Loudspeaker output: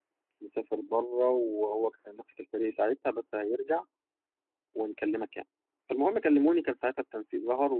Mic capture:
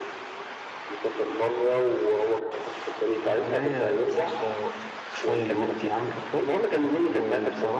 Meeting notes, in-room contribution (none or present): present